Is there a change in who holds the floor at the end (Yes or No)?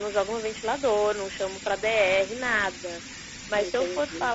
No